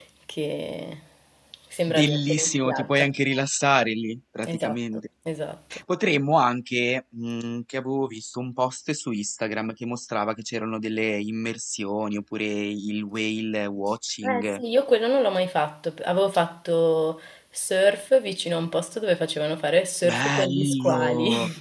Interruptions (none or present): present